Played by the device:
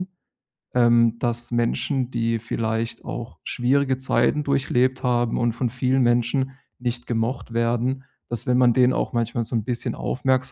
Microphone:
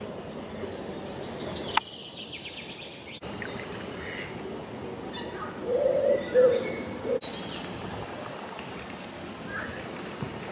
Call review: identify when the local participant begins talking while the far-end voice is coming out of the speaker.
none

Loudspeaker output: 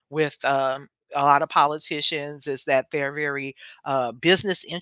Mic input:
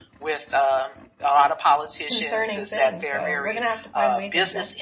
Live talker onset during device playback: 2.0 s

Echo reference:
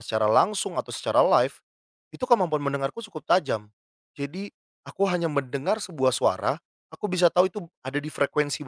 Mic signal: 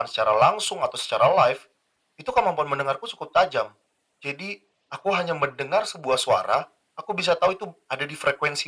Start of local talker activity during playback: none

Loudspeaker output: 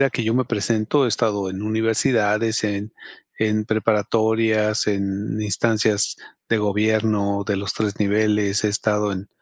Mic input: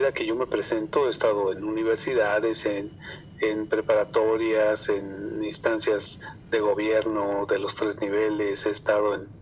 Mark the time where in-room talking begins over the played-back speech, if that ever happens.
none

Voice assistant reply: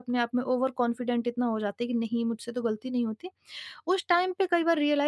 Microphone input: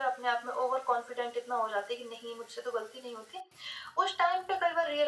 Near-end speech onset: none

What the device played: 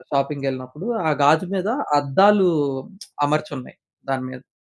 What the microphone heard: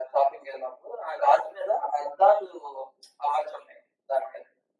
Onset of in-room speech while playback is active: none

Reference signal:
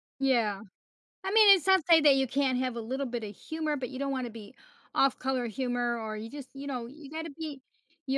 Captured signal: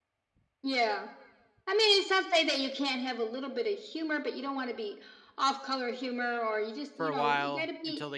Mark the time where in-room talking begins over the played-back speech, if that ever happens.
6.9 s

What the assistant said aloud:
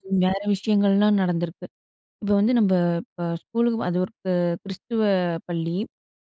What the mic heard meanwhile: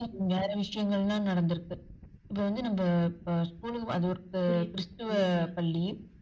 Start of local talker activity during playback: 4.5 s

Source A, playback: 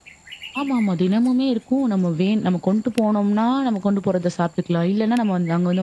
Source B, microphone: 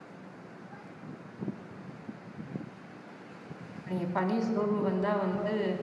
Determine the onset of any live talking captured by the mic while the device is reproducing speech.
3.8 s

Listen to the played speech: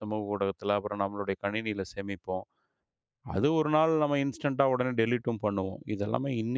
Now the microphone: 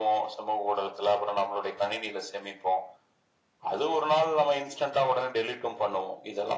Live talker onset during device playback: none

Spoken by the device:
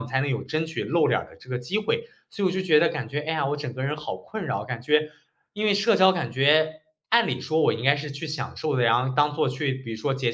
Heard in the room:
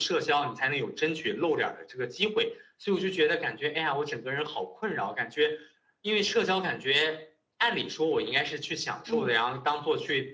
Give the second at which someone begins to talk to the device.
9.1 s

